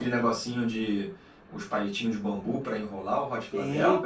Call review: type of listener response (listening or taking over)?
taking over